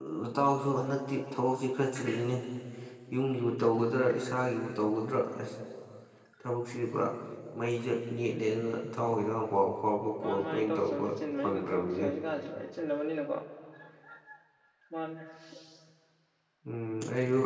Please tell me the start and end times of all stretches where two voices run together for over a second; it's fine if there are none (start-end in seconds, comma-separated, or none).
10.2-12.1